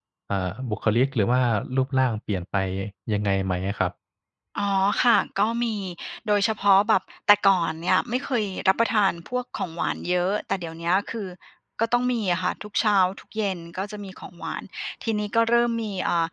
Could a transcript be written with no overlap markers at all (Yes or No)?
Yes